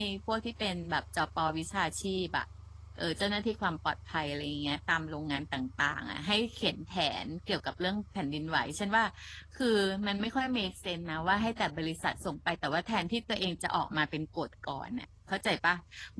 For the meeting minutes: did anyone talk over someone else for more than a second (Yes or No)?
No